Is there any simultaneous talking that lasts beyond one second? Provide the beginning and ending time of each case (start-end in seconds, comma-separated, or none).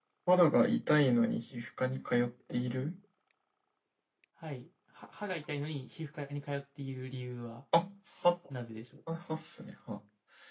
none